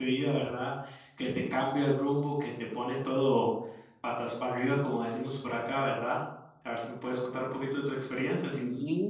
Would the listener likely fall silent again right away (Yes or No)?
No